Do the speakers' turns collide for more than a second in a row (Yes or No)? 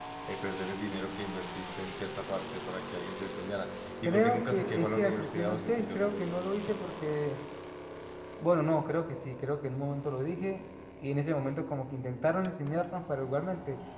Yes